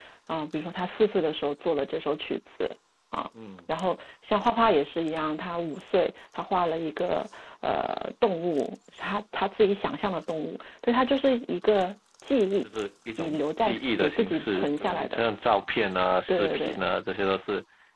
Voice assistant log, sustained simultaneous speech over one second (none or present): present